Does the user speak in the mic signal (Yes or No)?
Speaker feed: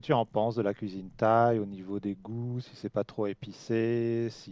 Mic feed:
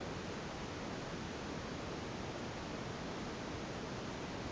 No